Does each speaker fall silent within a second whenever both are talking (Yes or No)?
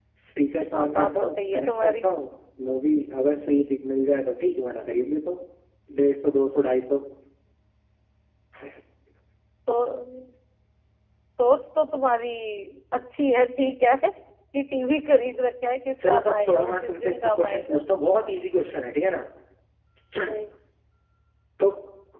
No